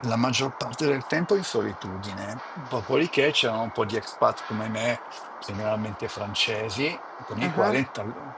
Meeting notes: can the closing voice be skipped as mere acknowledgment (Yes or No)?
Yes